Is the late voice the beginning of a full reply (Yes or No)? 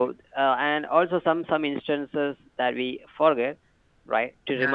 No